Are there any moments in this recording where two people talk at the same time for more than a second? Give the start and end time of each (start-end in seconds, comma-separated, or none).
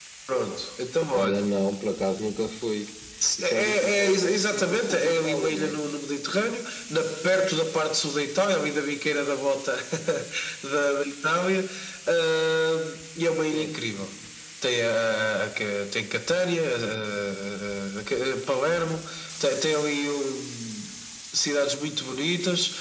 3.4-5.8